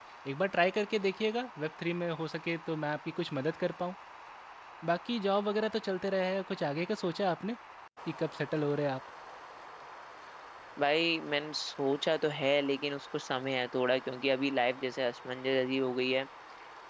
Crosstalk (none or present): none